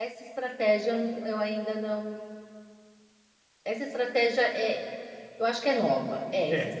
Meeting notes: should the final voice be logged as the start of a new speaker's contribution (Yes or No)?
No